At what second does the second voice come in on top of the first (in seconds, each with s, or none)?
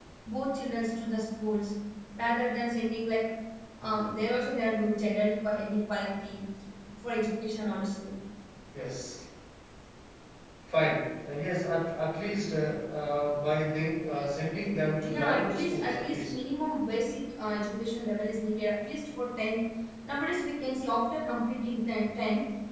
15.0 s